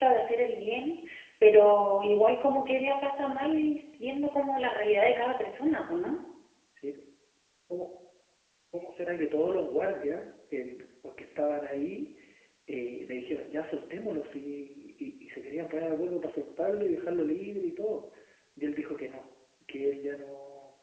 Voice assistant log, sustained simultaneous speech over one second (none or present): none